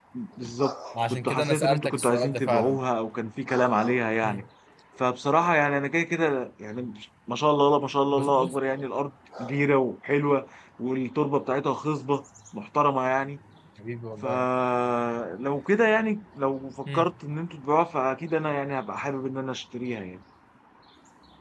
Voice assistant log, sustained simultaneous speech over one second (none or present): present